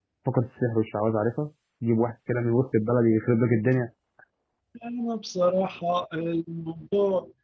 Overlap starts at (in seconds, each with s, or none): none